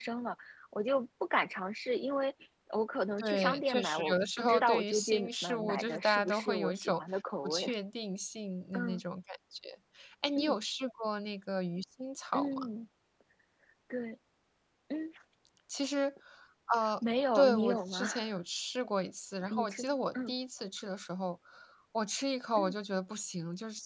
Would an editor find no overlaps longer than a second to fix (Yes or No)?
No